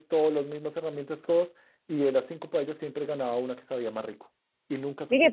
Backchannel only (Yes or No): No